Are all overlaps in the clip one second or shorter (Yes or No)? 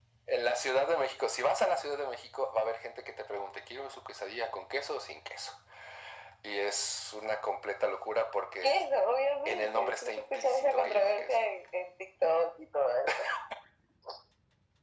No